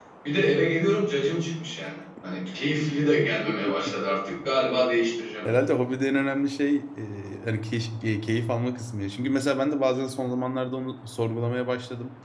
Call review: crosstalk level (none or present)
none